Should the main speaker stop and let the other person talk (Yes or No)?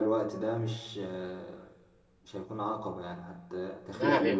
No